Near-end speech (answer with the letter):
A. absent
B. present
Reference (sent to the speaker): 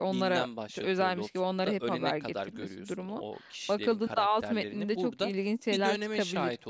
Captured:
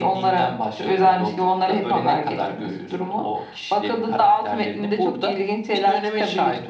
A